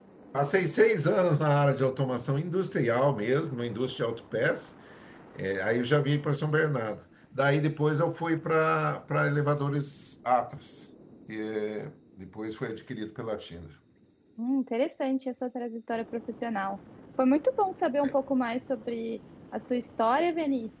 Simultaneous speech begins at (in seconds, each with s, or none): none